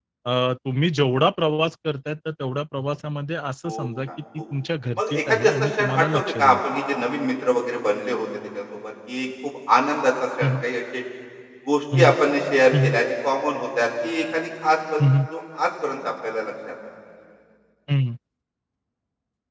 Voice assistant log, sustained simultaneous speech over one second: present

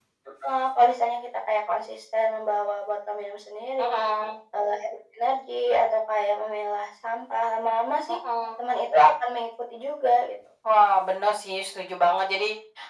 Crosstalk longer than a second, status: none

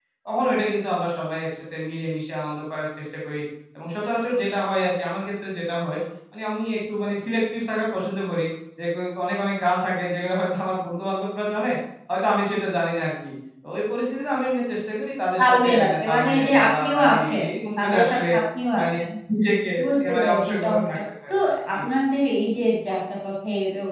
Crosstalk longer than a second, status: present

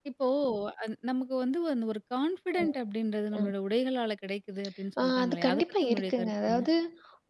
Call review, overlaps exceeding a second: present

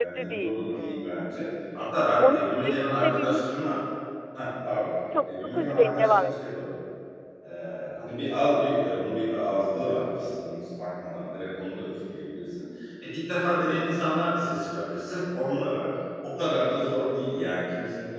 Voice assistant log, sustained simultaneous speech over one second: present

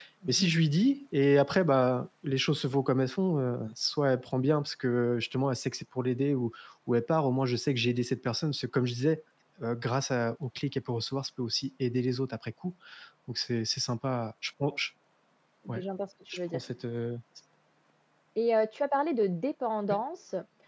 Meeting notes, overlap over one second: none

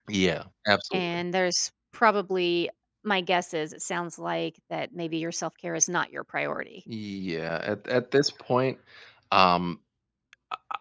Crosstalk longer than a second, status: none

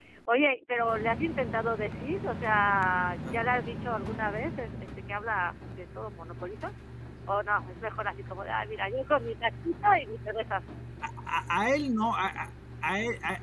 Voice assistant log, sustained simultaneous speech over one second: none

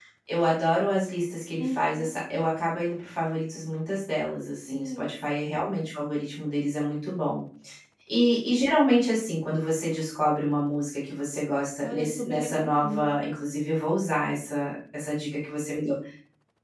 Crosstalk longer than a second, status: present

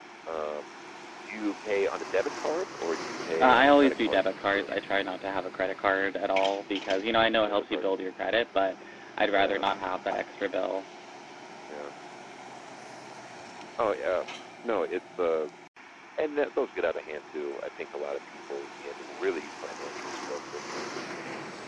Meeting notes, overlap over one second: present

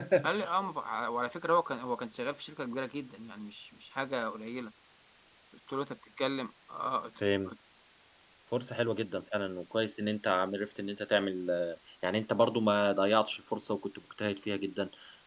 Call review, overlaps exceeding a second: none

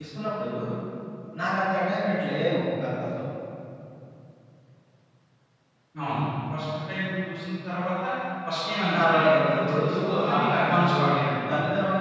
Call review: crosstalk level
present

